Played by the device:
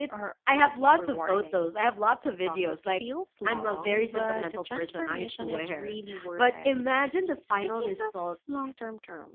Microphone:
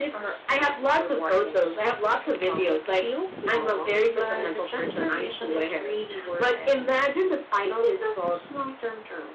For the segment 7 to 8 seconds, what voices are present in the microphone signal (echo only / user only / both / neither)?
echo only